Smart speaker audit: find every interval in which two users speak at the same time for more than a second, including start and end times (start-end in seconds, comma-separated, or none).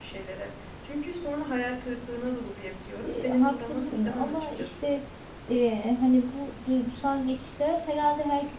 3.0-4.9